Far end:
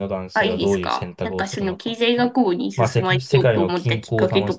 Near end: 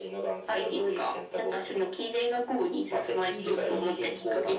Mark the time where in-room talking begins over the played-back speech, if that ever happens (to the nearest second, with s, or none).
3 s